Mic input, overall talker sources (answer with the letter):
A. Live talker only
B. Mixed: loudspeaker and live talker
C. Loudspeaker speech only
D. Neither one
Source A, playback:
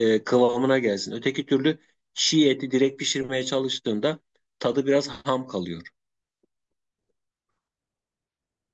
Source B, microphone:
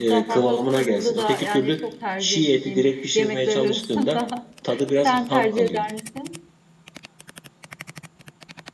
B